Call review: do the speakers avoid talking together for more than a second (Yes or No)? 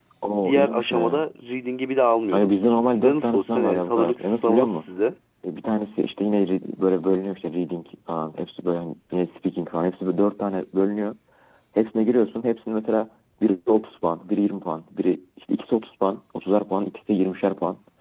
No